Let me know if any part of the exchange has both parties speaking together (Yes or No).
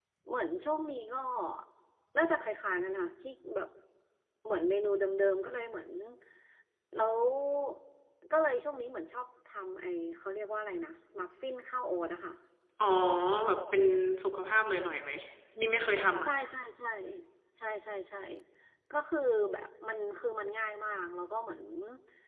No